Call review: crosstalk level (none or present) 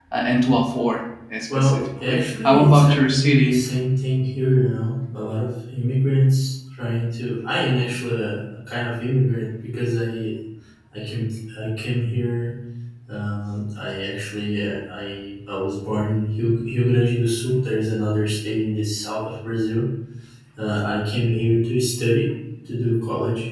present